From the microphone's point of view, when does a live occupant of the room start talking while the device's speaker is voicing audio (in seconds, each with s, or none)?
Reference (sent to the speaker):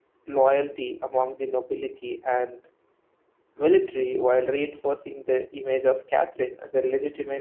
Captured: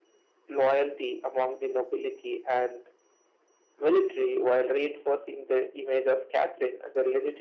none